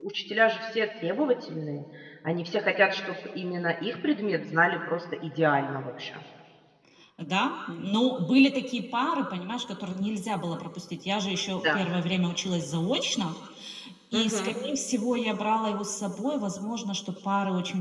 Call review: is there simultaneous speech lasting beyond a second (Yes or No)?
No